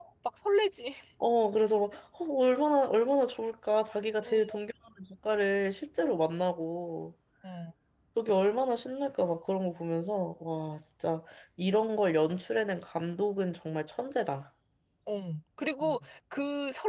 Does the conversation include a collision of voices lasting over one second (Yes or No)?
No